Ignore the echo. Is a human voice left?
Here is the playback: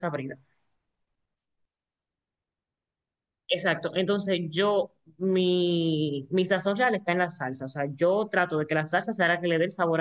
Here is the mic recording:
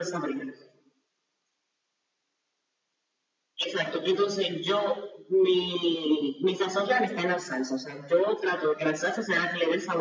No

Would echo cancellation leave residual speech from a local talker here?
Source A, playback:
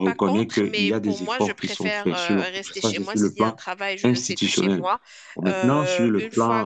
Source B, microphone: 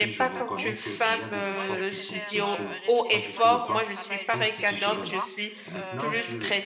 Yes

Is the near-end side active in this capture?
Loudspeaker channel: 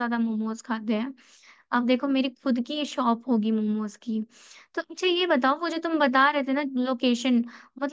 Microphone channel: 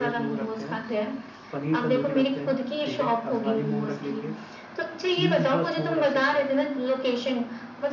Yes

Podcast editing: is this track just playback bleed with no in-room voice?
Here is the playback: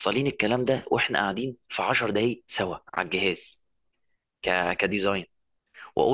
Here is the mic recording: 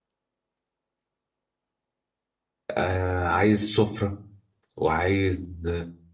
No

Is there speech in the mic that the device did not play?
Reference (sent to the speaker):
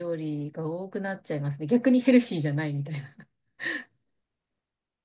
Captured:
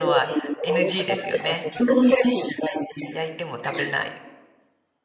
Yes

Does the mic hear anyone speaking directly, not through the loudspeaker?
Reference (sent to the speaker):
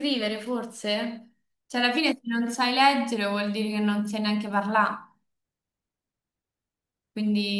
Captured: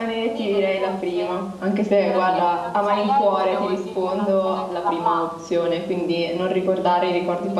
Yes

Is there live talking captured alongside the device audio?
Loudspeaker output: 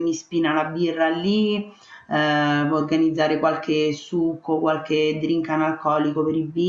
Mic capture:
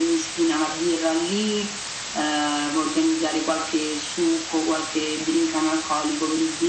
No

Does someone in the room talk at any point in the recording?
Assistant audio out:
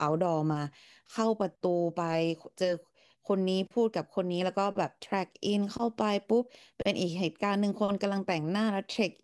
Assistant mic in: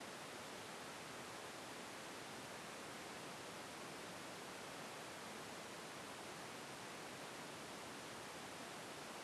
No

